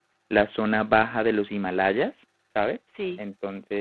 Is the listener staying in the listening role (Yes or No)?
Yes